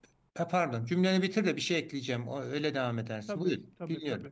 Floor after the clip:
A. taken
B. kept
A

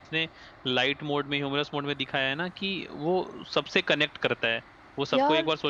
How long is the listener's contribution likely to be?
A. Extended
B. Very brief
B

